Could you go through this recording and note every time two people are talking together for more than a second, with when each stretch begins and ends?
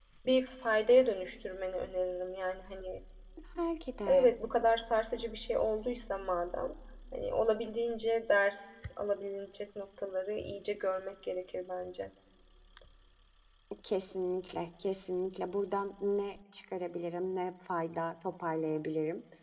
none

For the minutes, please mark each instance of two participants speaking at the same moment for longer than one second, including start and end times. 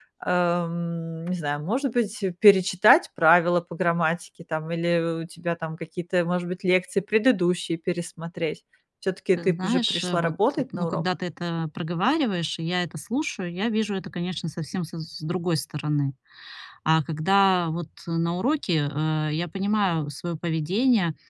9.3-11.0

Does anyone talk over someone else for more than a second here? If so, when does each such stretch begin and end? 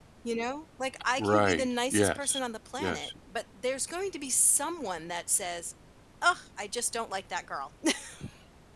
1.2-2.4

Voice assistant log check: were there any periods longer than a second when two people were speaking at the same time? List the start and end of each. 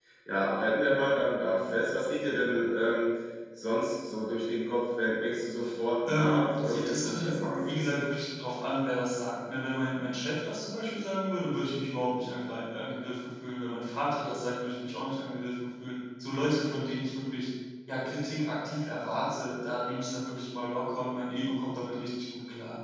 6.1-7.9

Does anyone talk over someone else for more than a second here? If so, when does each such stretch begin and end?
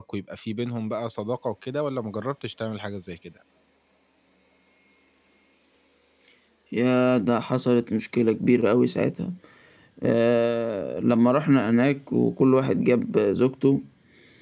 none

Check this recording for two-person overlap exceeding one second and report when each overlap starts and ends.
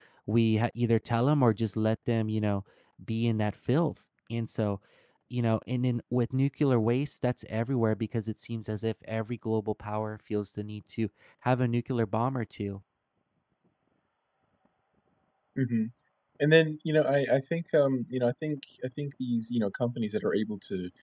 none

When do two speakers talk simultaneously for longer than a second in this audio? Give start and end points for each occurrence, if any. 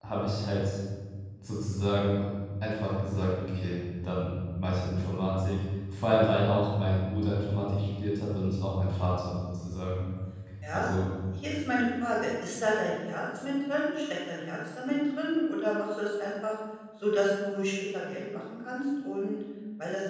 none

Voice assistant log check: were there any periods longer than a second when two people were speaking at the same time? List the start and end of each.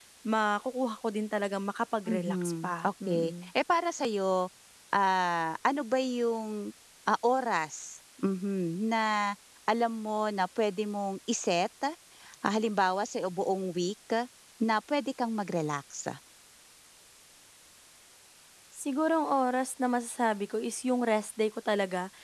2.1-3.3

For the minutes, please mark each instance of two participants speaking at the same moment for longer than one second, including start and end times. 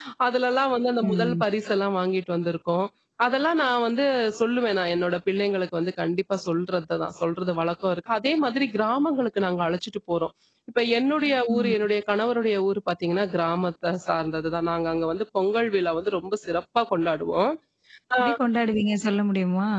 none

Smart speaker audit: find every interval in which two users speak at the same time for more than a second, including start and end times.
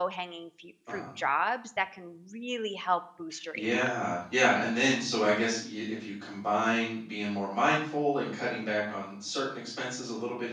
none

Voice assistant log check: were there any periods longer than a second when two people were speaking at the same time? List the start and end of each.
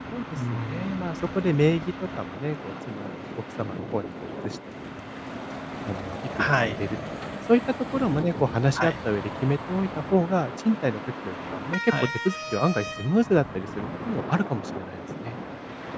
none

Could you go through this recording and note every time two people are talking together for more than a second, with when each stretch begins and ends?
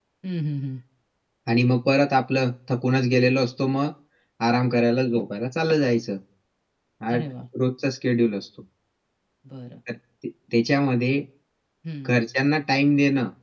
none

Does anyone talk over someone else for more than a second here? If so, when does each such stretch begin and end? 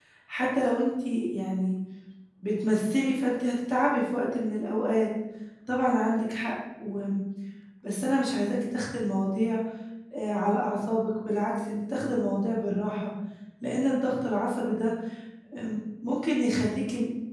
none

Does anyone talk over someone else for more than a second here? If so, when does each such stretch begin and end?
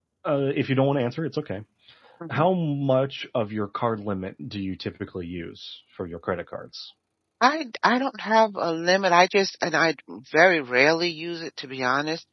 none

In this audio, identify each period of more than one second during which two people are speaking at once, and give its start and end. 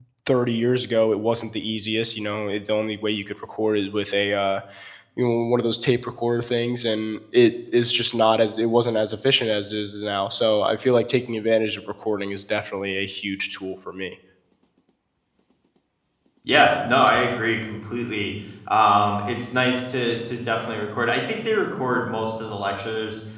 none

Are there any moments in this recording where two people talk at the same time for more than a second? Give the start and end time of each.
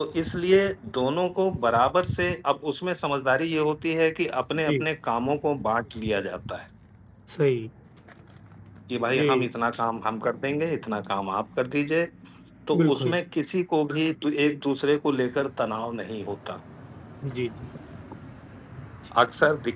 none

